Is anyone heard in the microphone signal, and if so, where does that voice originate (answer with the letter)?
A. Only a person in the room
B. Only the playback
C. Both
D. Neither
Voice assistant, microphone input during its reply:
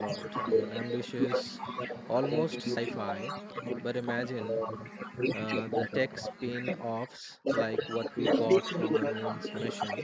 C